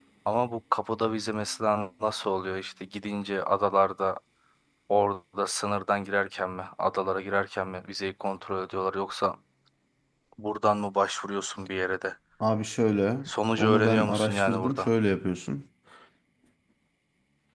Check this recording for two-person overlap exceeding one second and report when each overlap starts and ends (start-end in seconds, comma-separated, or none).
13.6-14.9